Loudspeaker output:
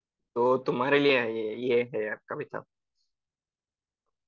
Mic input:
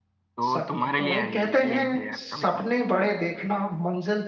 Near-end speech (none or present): present